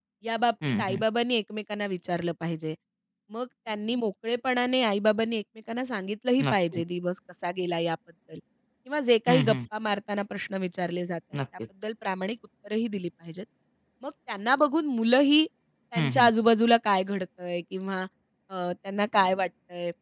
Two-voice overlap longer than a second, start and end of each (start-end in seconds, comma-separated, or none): none